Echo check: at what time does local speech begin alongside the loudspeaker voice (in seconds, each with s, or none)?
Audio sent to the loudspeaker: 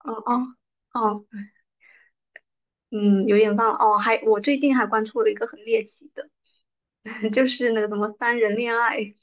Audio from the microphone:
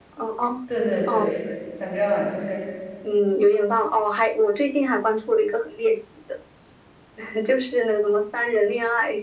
0.6 s